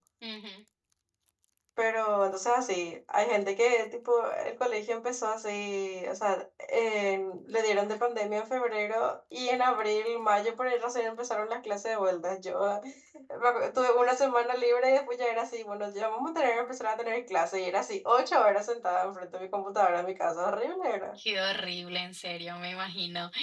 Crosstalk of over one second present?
No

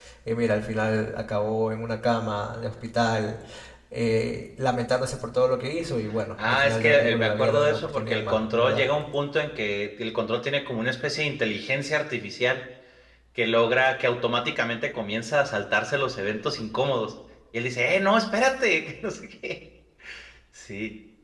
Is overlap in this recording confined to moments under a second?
No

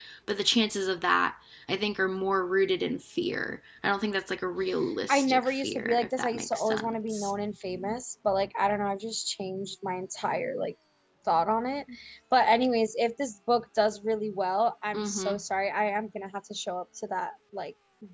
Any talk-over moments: Yes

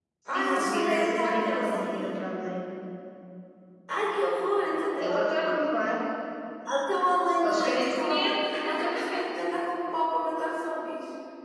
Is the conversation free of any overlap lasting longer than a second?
No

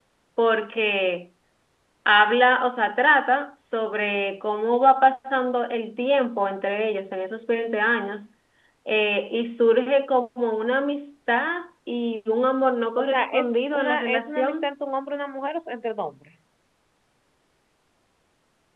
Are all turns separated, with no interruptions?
No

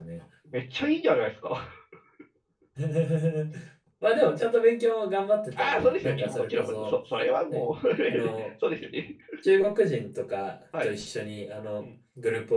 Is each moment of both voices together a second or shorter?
No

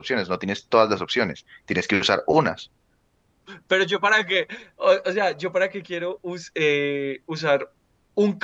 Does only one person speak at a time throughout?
Yes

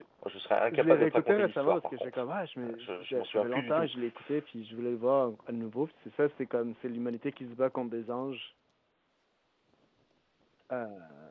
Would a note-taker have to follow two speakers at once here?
Yes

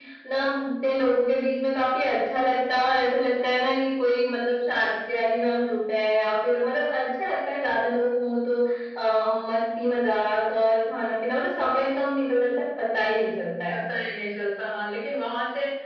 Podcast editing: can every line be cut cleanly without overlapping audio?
Yes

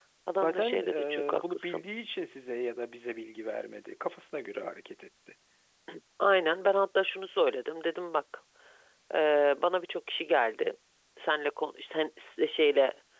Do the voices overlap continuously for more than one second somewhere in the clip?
Yes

